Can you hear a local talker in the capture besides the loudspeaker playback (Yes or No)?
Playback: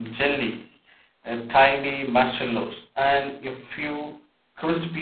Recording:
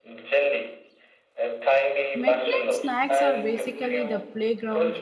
Yes